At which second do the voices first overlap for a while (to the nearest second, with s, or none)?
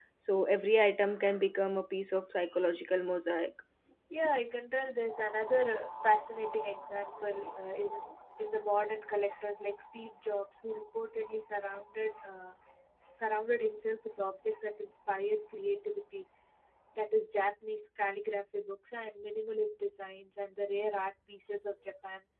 none